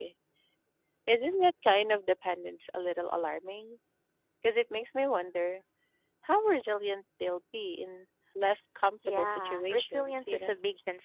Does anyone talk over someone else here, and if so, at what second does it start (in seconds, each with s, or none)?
9.0 s